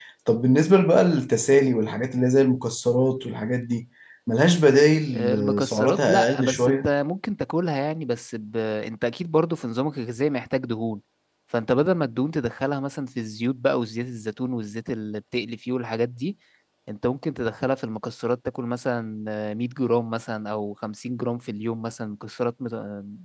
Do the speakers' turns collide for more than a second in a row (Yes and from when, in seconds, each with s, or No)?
Yes, from 5.1 s